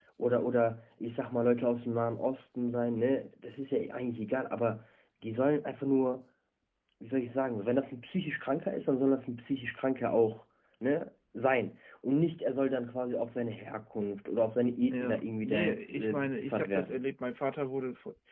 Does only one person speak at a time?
No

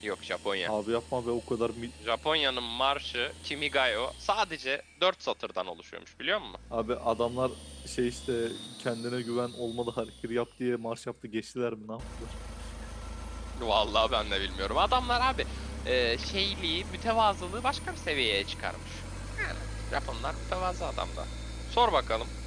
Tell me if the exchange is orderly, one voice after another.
Yes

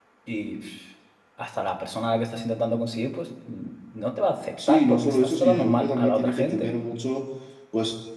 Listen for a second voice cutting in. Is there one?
Yes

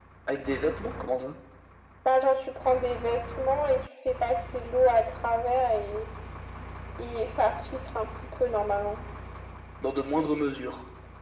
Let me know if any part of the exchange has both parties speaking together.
No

